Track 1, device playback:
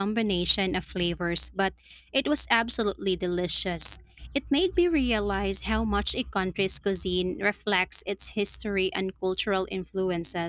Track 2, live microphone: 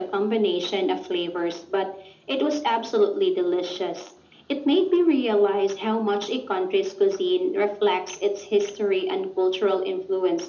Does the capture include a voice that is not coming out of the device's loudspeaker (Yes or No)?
No